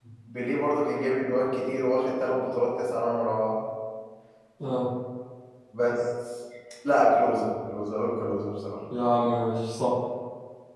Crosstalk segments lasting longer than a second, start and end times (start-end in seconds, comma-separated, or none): none